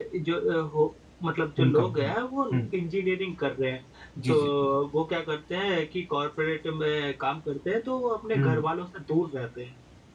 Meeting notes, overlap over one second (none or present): none